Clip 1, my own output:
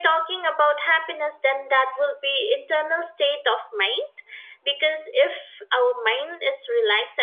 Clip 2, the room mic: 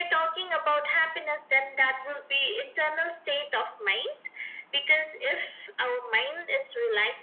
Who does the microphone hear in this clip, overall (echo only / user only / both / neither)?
echo only